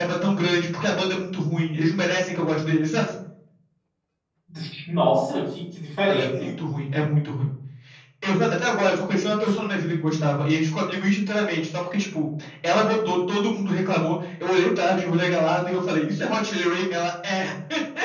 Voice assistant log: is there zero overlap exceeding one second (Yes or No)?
Yes